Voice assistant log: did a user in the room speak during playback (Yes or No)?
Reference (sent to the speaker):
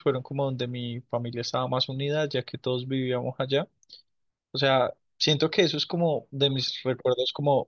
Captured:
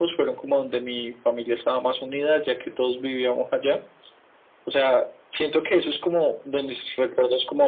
No